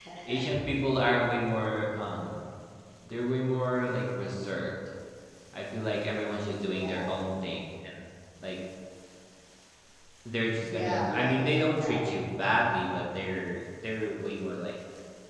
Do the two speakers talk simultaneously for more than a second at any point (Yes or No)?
Yes